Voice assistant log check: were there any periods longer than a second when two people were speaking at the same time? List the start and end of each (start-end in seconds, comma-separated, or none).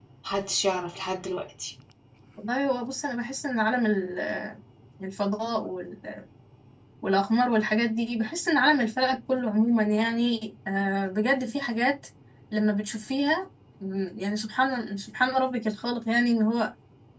none